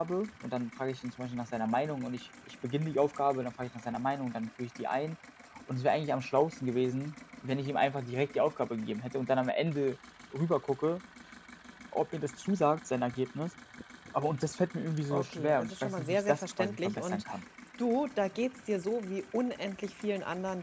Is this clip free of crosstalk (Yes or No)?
No